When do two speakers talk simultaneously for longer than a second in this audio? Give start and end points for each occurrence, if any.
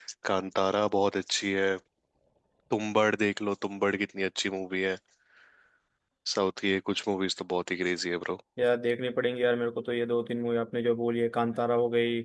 none

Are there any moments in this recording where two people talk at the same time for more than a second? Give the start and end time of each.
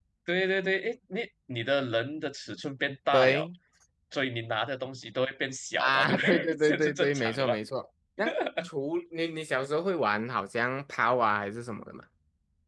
5.8-7.5

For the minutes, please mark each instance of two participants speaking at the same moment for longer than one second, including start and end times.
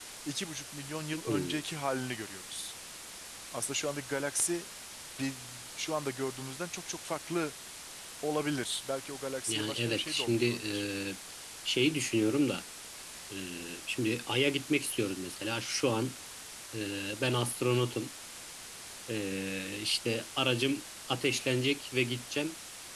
9.5-10.7

